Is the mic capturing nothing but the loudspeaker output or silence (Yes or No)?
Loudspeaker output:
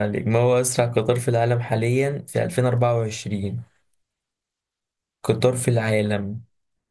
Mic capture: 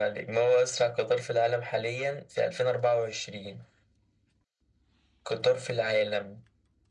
Yes